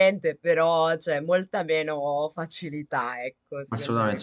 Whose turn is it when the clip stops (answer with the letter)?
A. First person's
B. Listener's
B